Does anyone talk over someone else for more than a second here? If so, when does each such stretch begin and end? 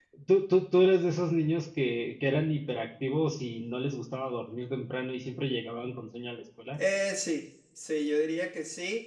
none

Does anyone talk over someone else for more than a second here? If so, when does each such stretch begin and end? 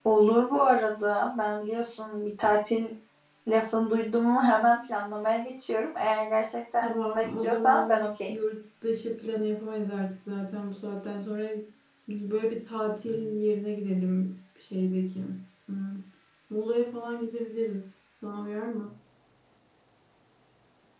6.8-8.3

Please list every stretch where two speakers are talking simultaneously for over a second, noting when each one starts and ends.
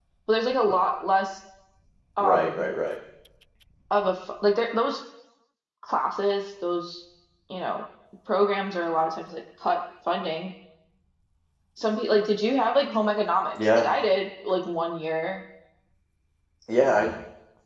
none

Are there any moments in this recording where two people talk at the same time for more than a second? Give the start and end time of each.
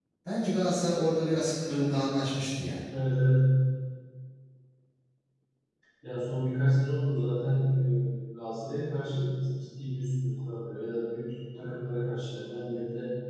none

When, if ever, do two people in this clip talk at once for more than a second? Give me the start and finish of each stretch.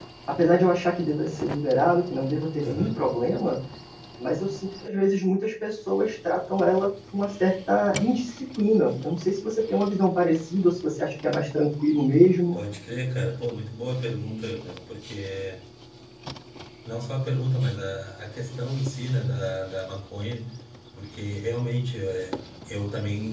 none

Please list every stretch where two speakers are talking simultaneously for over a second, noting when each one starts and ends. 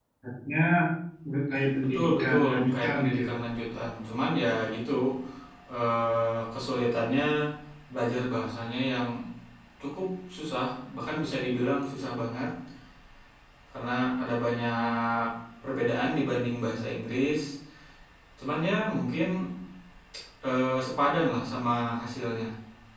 1.8-3.4

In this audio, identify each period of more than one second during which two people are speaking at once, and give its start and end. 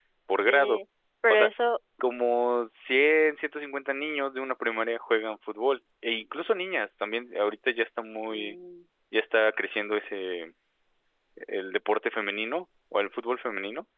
none

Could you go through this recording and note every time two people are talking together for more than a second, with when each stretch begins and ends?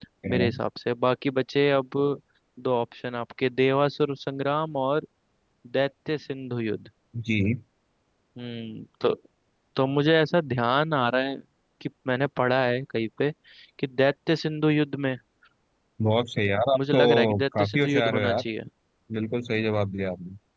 16.8-18.4

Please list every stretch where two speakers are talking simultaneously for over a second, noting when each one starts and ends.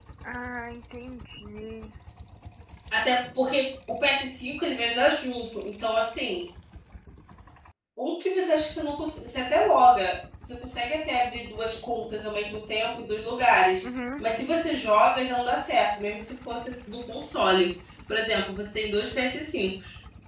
none

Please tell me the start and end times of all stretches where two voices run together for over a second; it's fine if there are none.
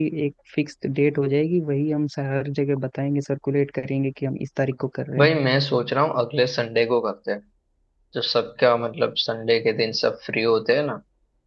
none

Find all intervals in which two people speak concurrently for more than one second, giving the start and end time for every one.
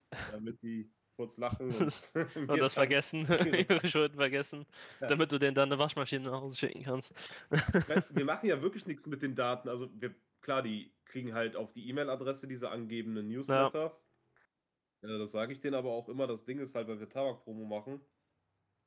none

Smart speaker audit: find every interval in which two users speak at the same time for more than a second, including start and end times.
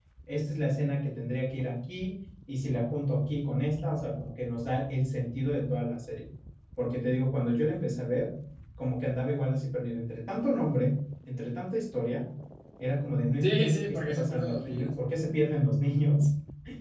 13.4-15.0

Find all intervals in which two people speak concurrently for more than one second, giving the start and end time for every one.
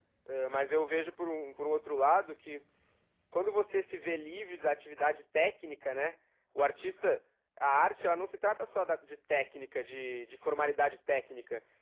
none

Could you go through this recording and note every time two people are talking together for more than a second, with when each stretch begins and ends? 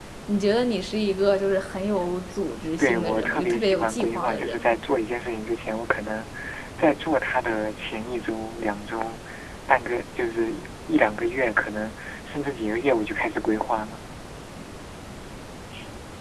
2.8-4.8

